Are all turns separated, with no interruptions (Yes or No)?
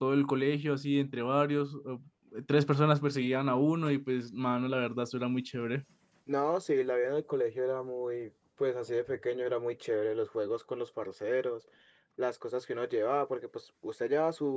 Yes